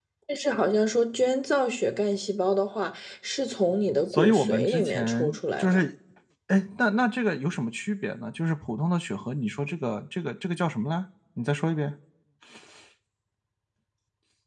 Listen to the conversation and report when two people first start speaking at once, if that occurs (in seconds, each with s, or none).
4.1 s